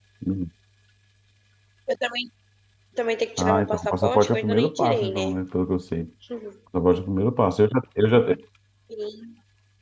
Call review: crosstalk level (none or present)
present